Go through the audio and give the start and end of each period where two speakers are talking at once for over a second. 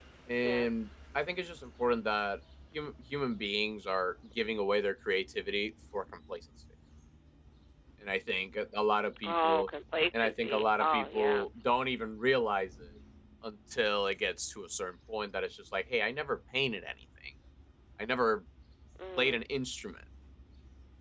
10.2-11.4

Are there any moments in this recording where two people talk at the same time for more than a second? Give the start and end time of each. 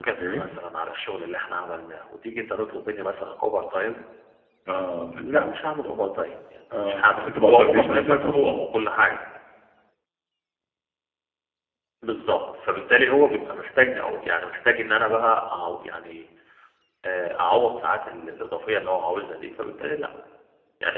6.9-8.6

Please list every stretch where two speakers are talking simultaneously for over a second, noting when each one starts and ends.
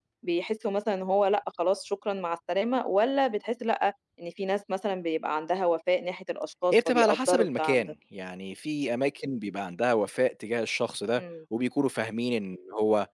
6.7-7.9

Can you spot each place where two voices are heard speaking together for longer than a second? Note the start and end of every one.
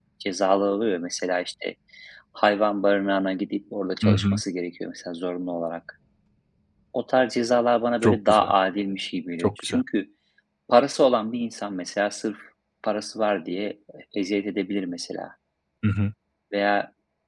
none

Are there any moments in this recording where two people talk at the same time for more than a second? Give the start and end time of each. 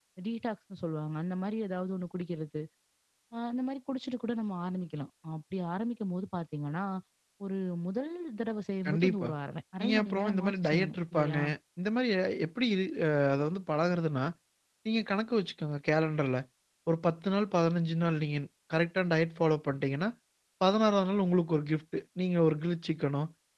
9.8-11.4

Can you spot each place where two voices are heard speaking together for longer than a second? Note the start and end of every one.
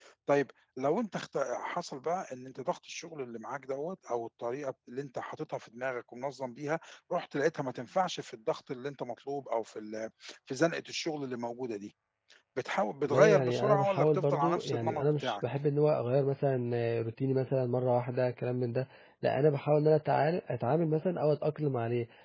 13.1-15.4

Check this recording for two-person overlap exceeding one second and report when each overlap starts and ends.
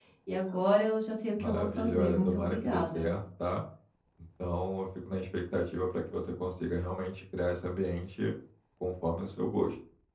1.4-3.1

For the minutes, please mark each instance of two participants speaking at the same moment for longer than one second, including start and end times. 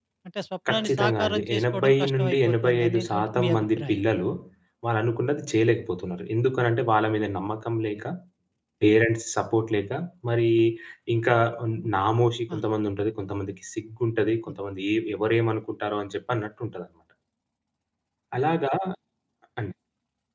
0.7-4.0

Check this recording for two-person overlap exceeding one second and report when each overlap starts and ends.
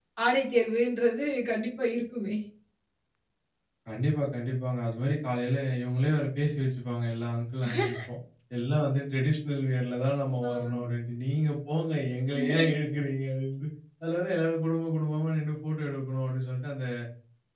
none

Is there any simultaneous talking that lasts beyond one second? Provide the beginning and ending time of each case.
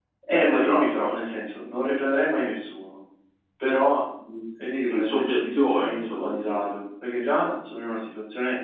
4.9-6.6

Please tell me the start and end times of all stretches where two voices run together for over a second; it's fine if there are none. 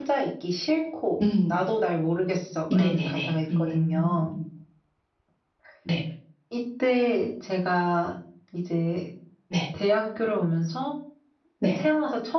2.7-4.3

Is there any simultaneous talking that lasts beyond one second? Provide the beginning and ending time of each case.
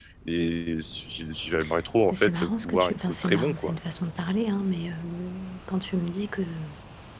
2.1-3.8

